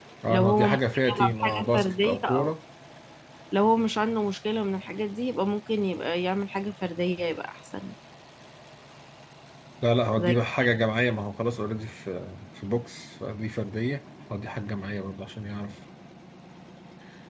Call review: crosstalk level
present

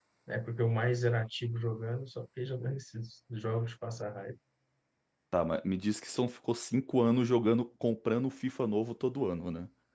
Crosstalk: none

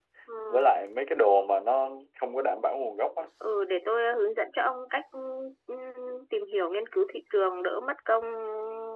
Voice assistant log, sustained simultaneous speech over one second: none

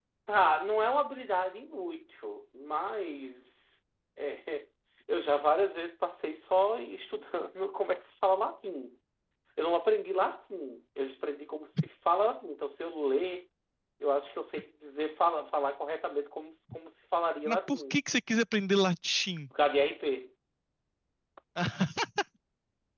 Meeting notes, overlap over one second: none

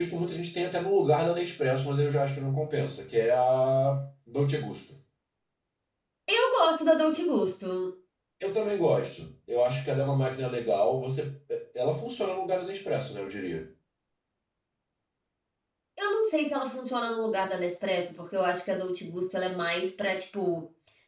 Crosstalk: none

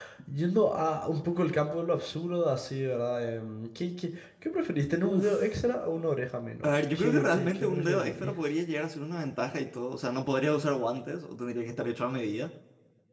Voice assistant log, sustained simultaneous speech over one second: present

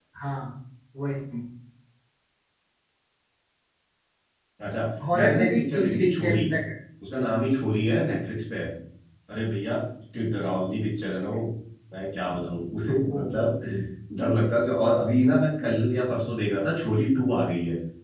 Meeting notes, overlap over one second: present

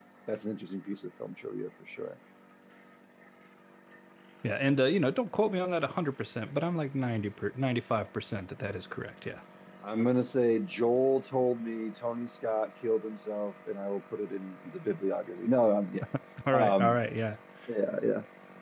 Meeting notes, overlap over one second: none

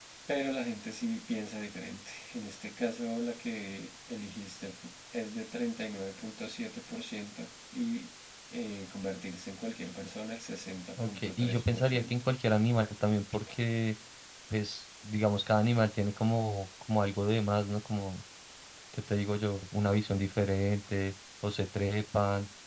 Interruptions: present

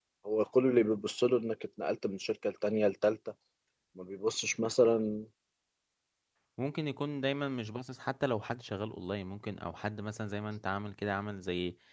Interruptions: none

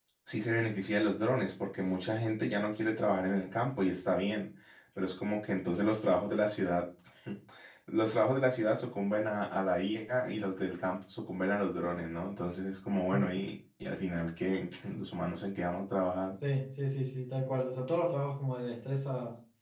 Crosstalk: none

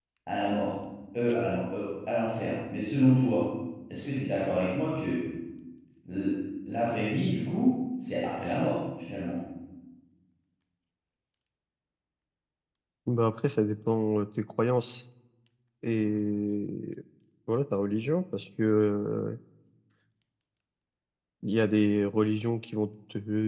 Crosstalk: none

